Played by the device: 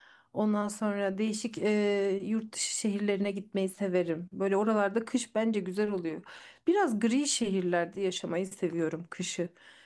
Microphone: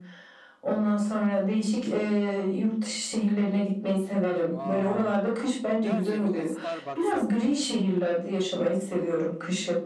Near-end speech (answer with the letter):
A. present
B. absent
A